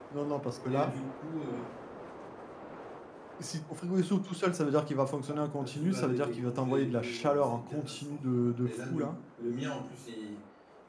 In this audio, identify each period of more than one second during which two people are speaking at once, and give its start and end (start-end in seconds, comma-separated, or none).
5.3-9.2